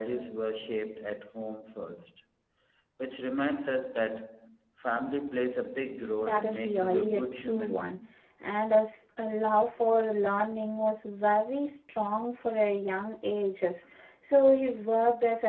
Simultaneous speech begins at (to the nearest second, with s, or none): 6 s